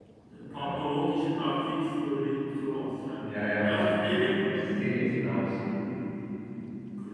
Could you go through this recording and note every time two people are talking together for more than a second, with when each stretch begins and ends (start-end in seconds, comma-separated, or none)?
3.6-4.8